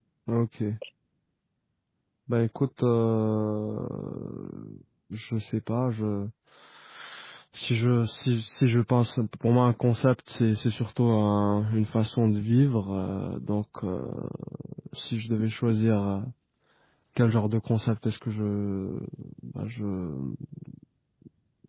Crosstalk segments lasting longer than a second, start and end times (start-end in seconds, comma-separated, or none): none